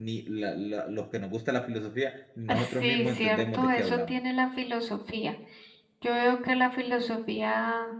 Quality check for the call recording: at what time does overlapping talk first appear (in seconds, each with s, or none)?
2.5 s